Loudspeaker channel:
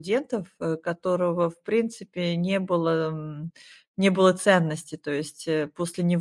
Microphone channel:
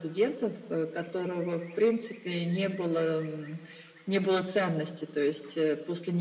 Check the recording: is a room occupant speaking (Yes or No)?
No